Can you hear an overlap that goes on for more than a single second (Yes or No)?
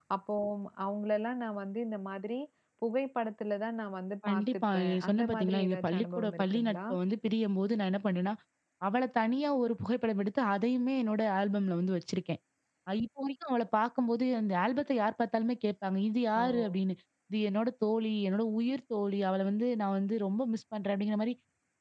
Yes